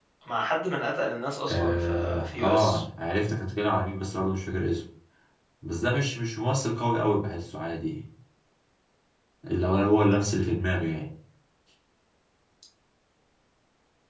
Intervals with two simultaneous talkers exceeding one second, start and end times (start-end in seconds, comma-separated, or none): 1.5-2.8